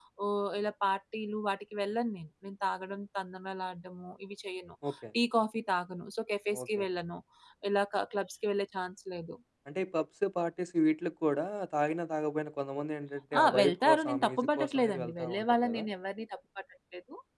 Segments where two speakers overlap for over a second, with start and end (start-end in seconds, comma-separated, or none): 13.4-15.8